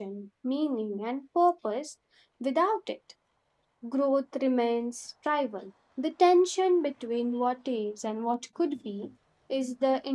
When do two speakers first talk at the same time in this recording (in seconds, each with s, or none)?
none